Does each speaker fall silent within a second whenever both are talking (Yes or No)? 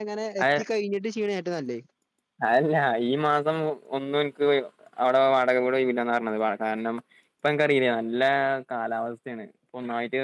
Yes